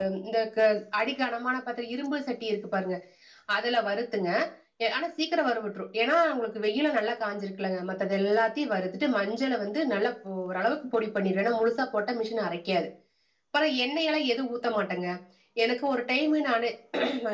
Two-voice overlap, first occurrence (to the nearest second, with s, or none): none